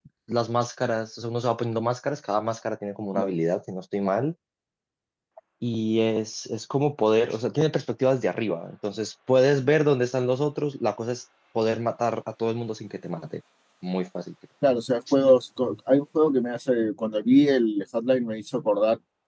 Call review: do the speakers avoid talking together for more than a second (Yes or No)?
Yes